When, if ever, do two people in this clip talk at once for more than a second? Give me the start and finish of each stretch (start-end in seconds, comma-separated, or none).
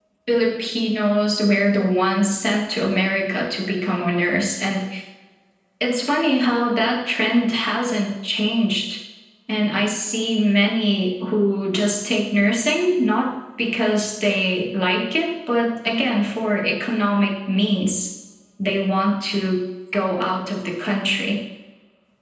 none